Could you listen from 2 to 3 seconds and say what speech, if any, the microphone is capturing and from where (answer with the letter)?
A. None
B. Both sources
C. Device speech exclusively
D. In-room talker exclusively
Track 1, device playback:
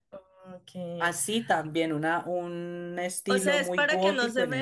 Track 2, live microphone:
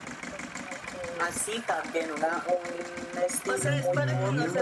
C